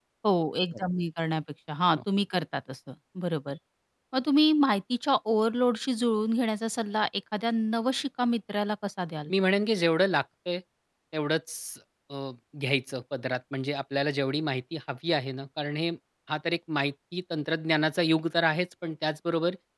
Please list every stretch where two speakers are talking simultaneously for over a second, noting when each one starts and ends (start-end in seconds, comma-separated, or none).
none